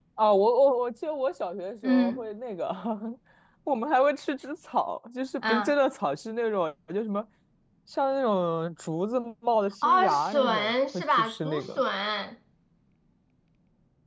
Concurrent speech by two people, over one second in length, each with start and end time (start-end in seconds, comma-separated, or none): 9.8-11.8